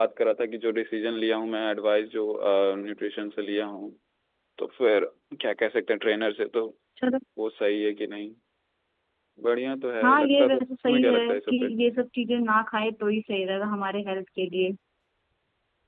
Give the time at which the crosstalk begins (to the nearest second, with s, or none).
10 s